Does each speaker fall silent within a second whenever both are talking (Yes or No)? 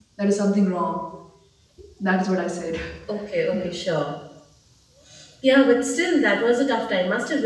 Yes